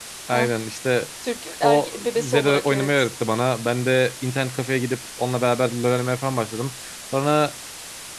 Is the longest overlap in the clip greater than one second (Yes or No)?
Yes